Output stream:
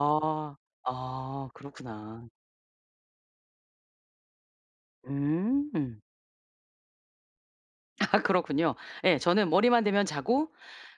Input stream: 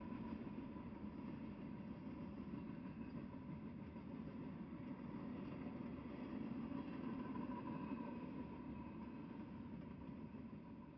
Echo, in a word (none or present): none